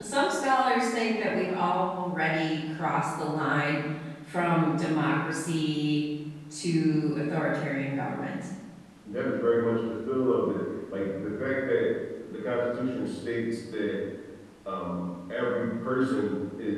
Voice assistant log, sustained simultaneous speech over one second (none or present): none